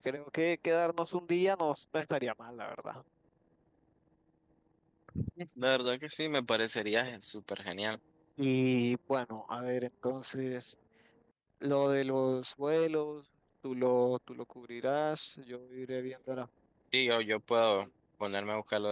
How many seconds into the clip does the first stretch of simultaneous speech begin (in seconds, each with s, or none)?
none